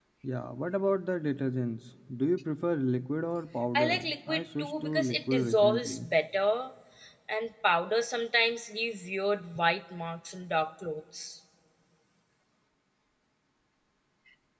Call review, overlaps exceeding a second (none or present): present